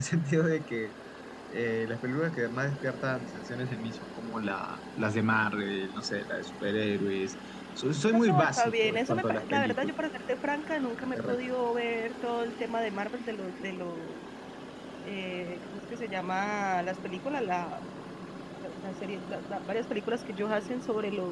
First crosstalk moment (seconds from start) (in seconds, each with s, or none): 8.1 s